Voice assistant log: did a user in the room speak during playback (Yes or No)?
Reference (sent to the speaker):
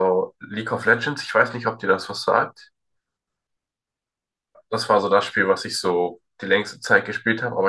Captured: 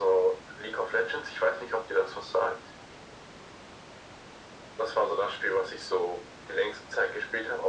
No